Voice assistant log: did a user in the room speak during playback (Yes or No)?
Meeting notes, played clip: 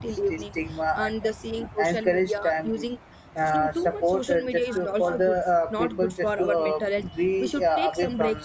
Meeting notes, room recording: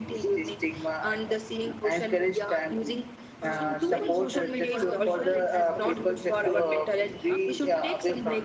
Yes